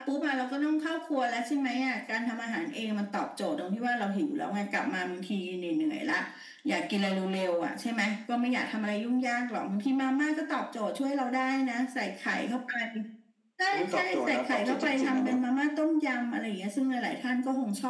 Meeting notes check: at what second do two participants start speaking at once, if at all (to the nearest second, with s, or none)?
14 s